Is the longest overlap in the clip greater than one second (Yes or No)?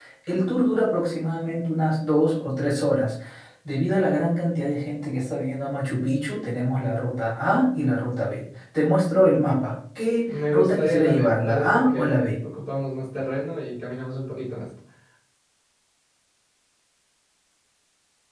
Yes